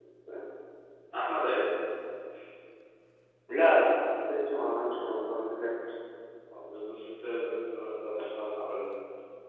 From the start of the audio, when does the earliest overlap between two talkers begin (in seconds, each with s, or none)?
none